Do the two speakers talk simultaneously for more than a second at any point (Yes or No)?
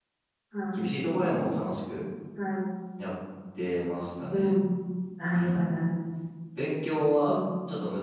No